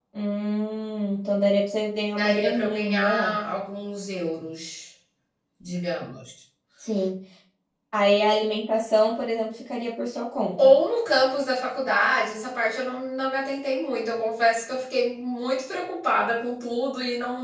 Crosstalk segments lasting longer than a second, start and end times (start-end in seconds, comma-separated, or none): 2.2-3.4